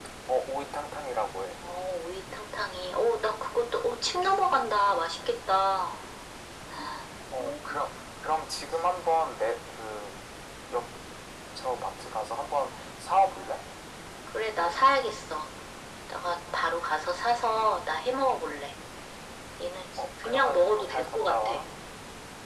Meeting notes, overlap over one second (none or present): present